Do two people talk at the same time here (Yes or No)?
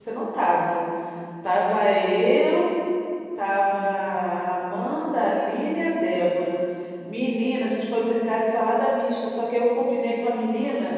No